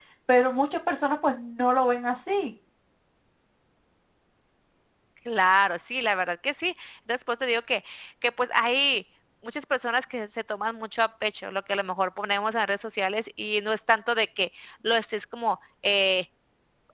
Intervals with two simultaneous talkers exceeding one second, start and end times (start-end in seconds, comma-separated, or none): none